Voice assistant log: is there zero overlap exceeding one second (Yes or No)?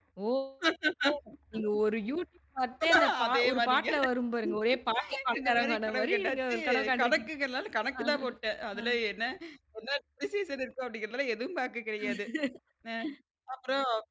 No